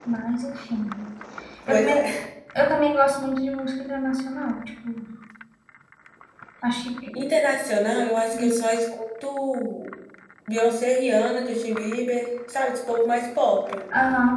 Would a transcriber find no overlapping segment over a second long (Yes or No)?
Yes